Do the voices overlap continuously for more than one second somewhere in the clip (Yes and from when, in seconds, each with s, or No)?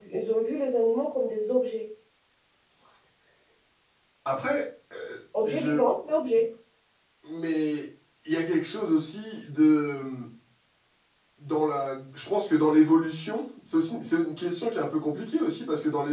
No